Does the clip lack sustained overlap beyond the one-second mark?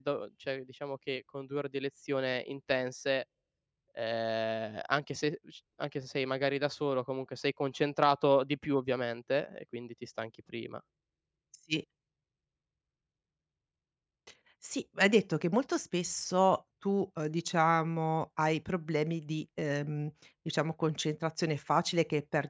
Yes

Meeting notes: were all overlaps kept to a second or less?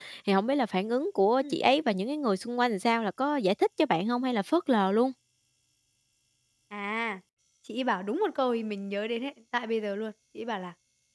Yes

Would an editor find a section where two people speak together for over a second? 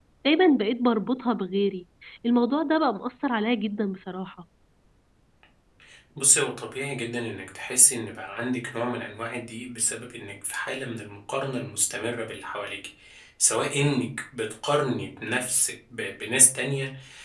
No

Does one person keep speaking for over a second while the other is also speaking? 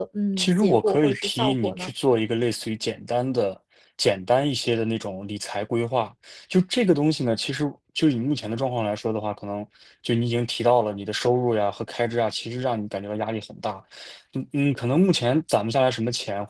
Yes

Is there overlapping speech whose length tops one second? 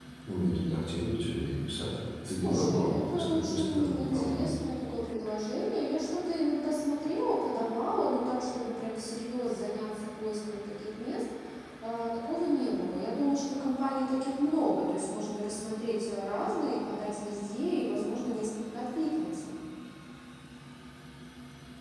Yes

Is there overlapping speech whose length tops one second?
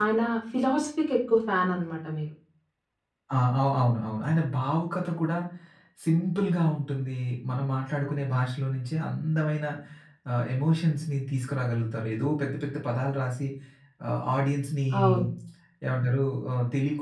No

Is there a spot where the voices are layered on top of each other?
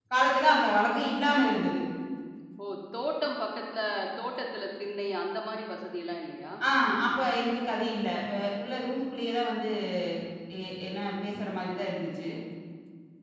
No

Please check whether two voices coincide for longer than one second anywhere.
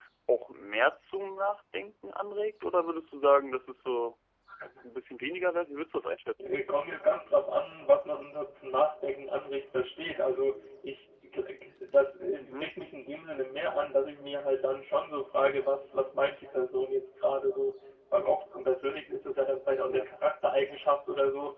No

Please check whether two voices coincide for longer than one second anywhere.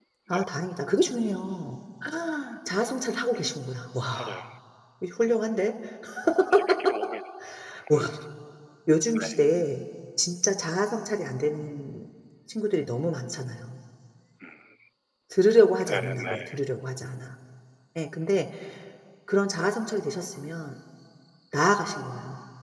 No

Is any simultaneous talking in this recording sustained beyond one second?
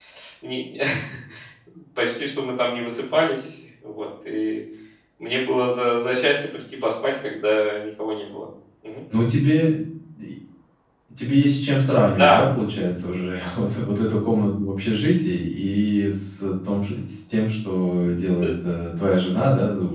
No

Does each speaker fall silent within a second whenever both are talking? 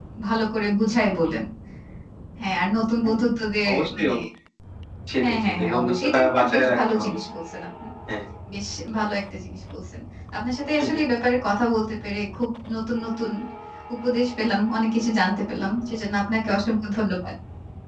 No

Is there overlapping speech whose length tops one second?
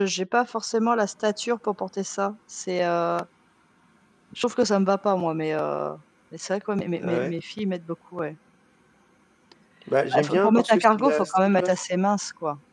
Yes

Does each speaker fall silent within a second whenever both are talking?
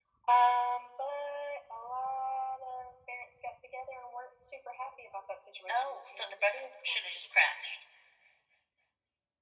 No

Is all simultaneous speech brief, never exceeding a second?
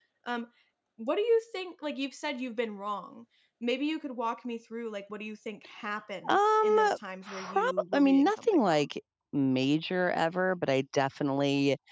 No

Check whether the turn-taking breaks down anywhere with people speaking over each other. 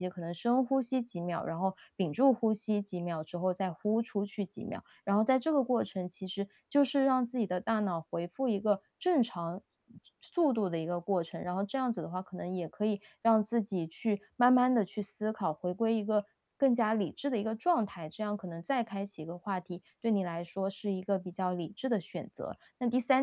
No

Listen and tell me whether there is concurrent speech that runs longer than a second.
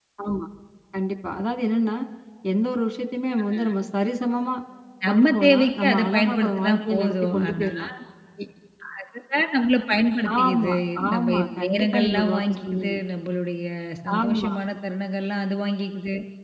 Yes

